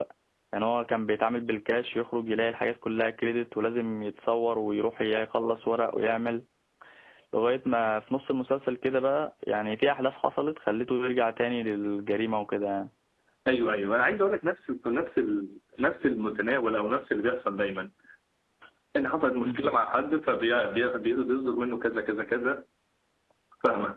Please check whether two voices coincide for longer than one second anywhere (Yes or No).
No